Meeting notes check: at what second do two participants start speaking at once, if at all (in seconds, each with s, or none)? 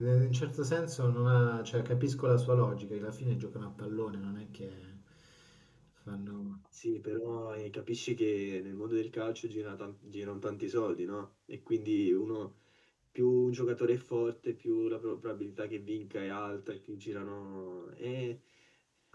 none